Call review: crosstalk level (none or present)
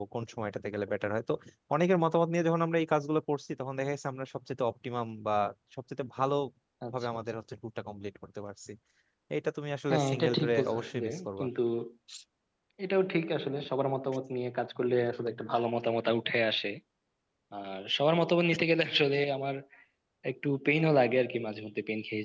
present